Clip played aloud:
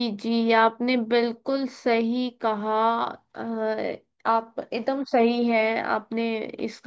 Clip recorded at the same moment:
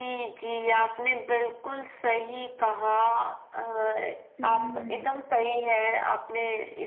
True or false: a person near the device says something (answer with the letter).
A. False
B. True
B